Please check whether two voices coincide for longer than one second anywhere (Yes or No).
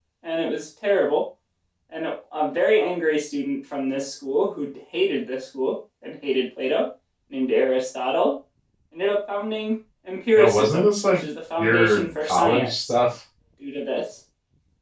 Yes